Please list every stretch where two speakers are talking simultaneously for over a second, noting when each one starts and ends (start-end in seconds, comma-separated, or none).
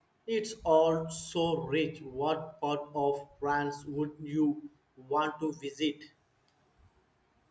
none